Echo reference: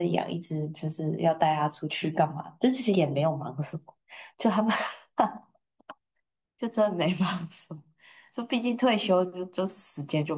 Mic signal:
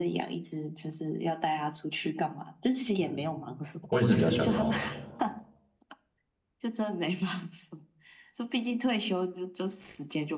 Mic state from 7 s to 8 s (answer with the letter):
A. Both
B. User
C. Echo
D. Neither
C